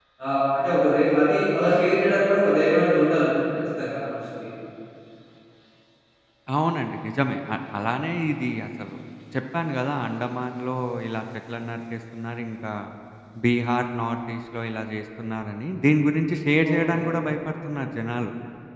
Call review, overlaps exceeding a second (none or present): none